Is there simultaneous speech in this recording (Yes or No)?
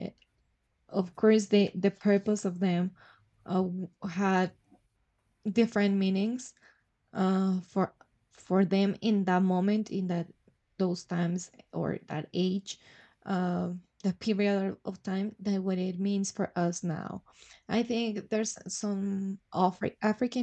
No